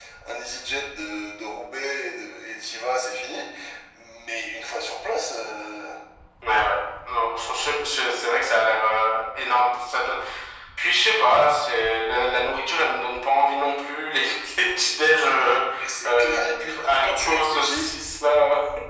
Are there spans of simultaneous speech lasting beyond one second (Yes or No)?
Yes